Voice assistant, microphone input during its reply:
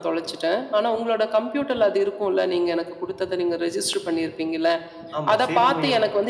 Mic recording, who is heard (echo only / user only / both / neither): both